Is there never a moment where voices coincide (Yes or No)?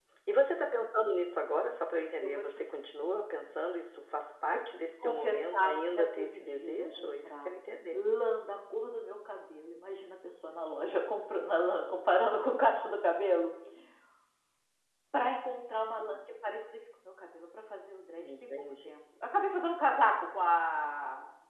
No